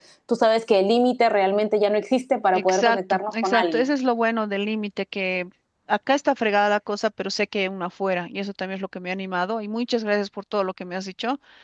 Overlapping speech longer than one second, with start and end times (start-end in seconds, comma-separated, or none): 2.5-3.8